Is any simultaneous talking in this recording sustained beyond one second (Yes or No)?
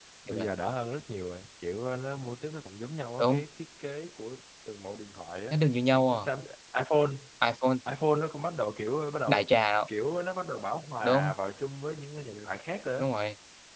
No